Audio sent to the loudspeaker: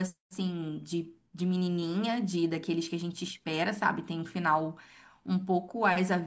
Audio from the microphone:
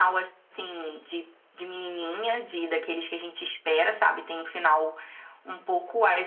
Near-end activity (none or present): none